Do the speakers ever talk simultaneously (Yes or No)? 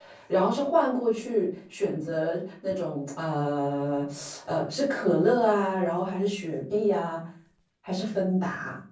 No